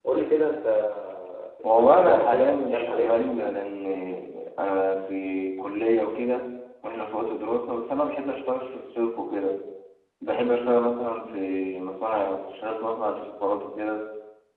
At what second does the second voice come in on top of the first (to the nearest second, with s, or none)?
2 s